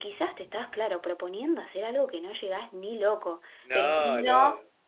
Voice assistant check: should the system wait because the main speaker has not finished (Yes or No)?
Yes